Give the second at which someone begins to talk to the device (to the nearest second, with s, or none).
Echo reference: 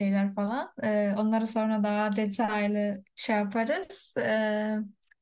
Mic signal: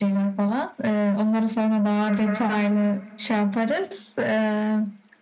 2 s